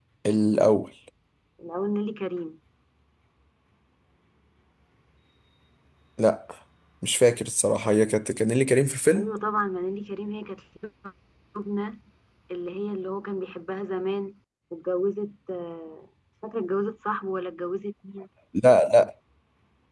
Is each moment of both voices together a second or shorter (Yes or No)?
Yes